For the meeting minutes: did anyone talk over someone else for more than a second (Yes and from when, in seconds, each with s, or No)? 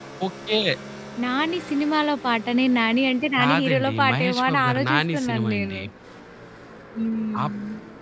Yes, from 3.4 s